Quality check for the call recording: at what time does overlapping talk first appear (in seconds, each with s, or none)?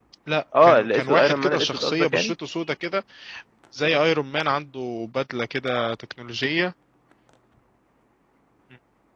0.6 s